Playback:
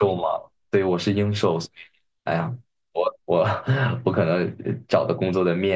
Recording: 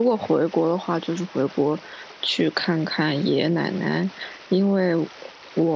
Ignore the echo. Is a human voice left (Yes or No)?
Yes